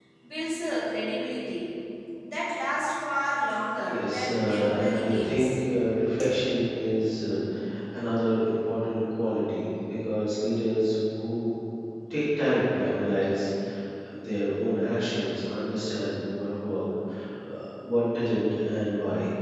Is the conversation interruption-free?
No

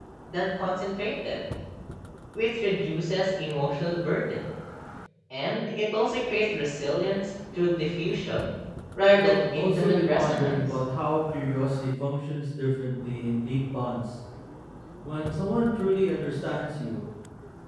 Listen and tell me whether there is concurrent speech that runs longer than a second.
Yes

